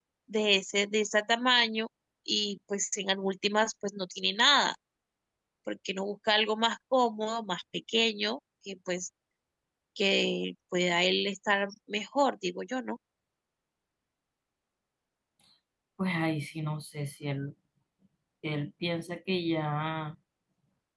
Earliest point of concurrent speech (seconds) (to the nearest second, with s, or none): none